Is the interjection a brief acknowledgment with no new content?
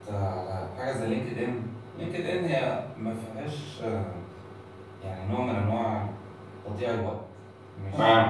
Yes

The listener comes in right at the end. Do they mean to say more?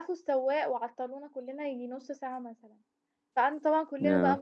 No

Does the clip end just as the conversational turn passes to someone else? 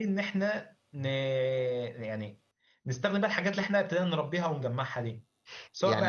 Yes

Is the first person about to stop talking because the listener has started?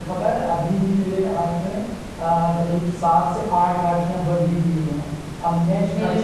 No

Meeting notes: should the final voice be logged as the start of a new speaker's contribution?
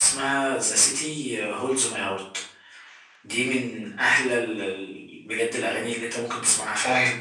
Yes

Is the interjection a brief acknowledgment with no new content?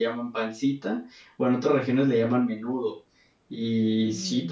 Yes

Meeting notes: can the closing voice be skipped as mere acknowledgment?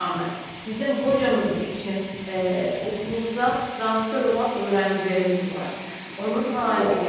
Yes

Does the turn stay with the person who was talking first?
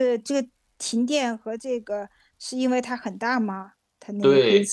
No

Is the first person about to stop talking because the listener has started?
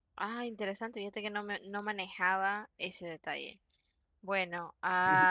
No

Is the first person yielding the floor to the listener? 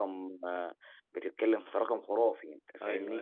No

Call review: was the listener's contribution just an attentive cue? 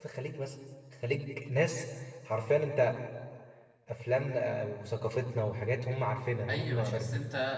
No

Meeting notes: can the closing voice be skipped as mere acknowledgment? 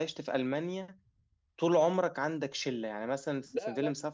Yes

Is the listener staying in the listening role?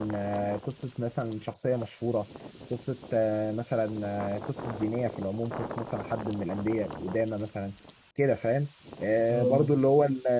Yes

